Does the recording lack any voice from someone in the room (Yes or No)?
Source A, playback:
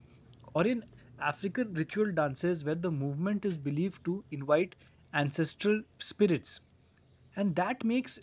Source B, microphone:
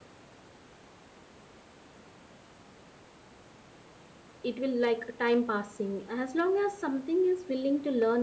No